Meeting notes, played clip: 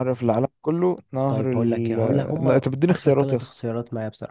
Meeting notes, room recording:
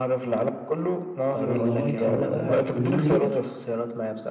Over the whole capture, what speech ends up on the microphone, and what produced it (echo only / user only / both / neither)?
both